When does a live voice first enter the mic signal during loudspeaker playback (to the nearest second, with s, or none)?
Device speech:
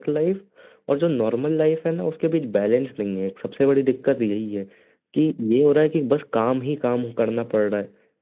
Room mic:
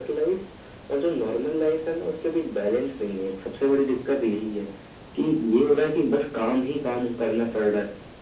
none